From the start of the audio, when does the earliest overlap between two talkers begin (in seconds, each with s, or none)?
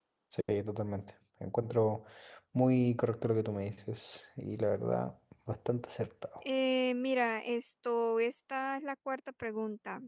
none